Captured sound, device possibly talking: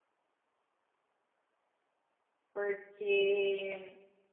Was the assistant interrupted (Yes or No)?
Yes